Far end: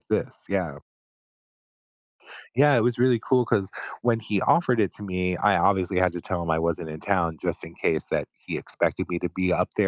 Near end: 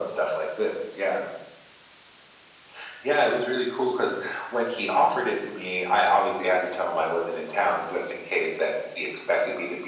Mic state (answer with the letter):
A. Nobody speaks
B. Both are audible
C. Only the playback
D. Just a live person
C